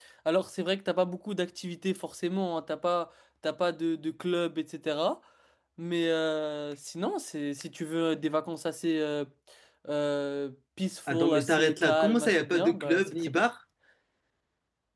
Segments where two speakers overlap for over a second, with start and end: 11.1-13.5

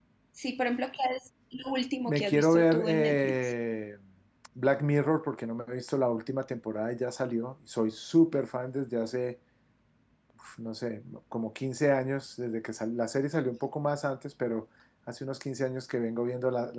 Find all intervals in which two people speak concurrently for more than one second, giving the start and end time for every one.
2.0-3.5

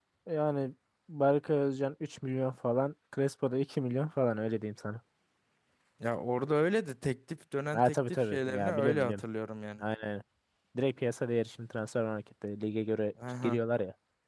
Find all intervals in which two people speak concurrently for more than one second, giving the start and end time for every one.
7.7-9.2

